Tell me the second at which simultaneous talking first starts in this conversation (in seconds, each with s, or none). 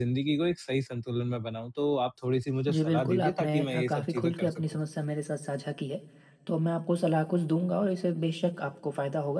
2.7 s